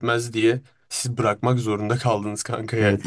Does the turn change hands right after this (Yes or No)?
Yes